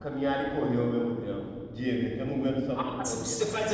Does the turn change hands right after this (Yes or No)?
Yes